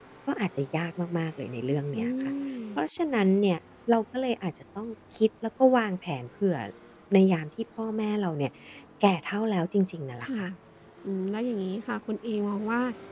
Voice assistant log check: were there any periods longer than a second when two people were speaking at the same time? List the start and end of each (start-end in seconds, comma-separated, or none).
none